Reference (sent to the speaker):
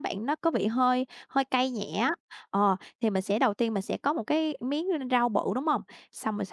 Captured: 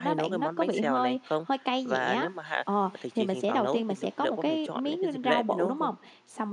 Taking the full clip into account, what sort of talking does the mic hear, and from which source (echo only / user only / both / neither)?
both